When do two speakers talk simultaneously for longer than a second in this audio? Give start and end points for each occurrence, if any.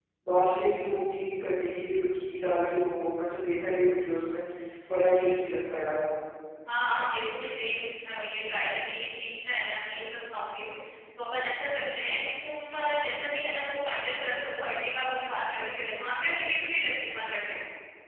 none

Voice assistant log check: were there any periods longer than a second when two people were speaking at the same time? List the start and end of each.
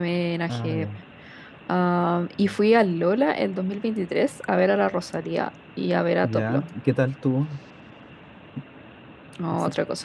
none

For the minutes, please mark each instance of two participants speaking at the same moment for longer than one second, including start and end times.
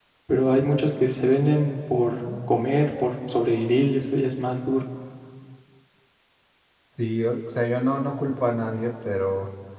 none

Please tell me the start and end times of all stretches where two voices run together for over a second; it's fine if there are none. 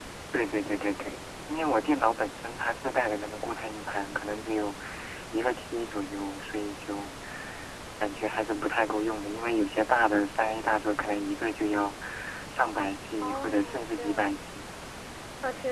13.2-14.5

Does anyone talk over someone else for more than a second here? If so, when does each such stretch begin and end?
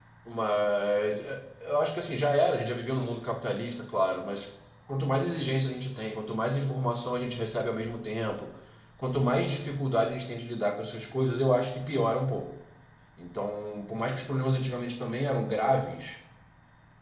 none

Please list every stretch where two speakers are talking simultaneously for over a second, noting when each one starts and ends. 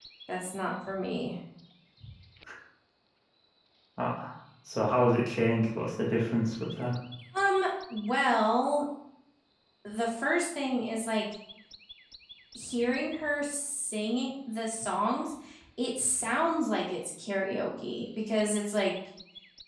none

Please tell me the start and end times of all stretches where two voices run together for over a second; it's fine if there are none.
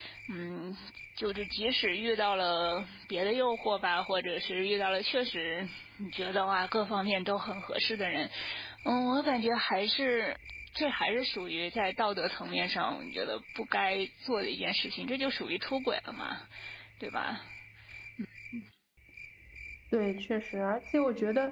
none

